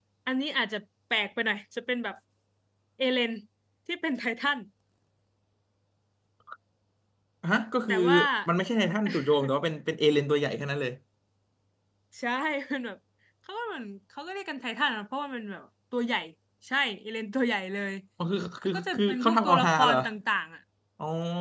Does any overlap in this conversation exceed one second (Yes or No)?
Yes